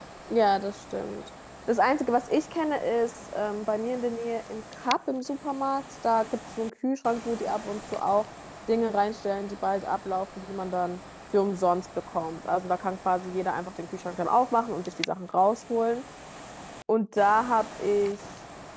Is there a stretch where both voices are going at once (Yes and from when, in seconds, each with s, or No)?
No